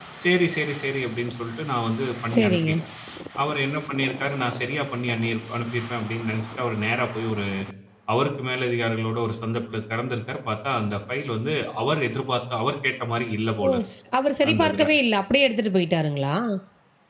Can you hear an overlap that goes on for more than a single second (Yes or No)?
No